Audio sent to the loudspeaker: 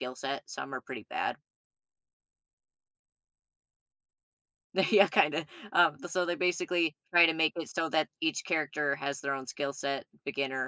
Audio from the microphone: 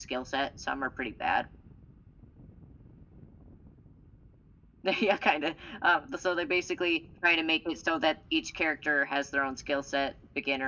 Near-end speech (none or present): none